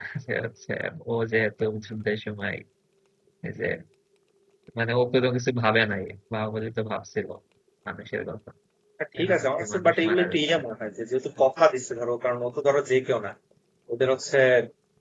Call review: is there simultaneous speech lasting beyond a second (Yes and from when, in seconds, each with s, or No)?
Yes, from 9.2 s